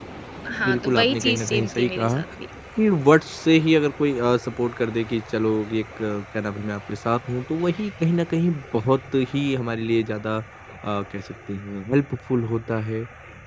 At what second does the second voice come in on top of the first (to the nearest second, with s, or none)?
1 s